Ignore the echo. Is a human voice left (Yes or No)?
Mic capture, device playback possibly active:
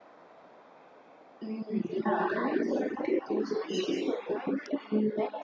No